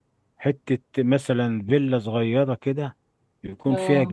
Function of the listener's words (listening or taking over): listening